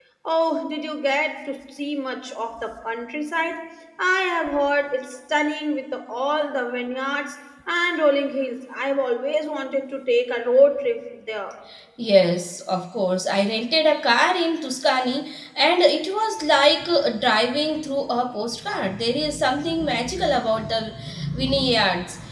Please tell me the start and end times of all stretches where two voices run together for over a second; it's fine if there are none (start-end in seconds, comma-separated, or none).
none